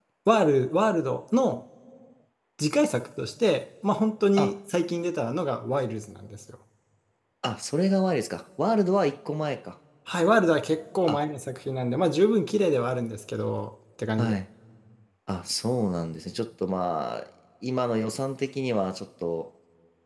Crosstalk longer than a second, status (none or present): none